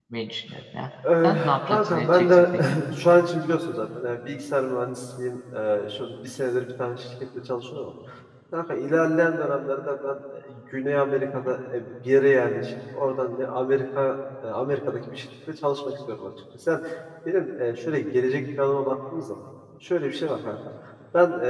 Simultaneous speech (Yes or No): Yes